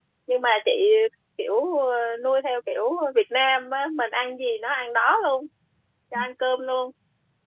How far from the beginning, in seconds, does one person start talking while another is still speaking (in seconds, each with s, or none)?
none